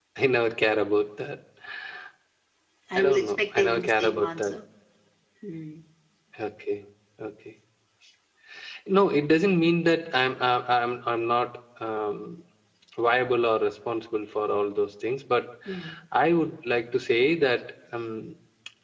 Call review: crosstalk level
present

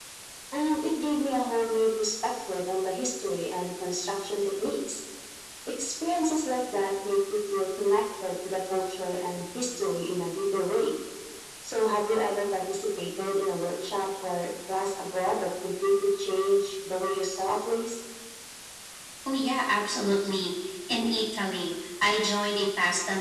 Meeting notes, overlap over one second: none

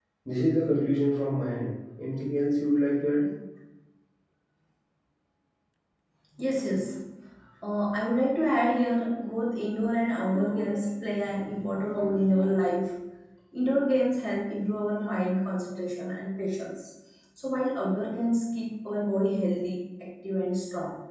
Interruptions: none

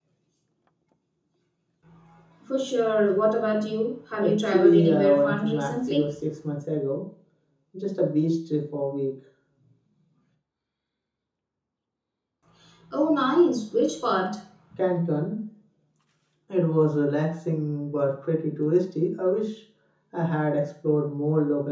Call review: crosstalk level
present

